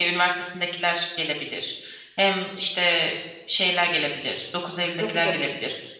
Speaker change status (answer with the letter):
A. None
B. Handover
A